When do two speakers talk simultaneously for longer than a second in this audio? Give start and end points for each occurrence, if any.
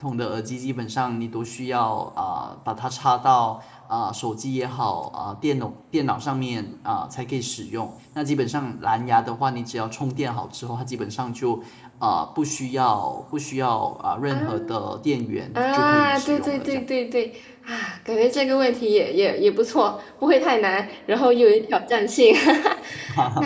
15.6-16.8

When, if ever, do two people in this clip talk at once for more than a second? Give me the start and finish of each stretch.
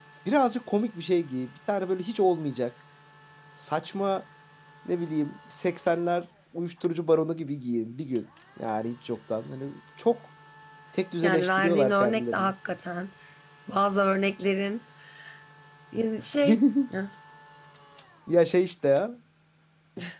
11.2-12.5

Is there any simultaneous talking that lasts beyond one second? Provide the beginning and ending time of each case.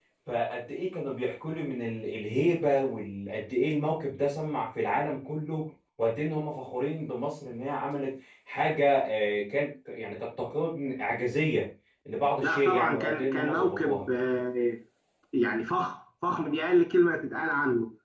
12.4-14.0

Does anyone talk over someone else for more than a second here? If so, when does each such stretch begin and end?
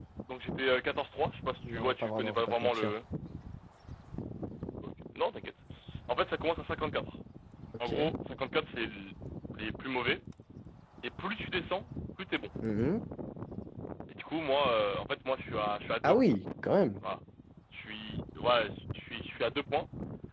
1.7-2.9

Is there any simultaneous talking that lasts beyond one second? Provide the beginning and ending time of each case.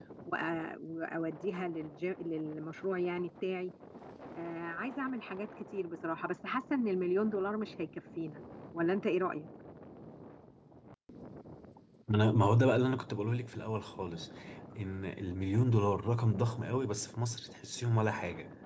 none

